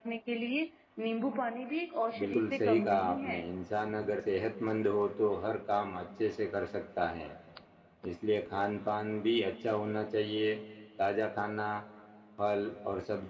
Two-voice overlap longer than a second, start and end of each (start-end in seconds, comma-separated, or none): 2.2-3.4